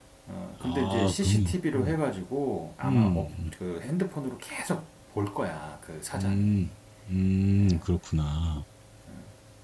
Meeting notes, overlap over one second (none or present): present